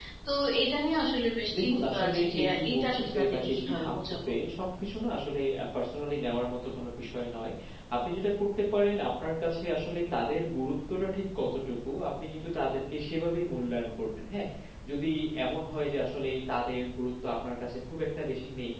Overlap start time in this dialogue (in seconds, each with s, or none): 1.5 s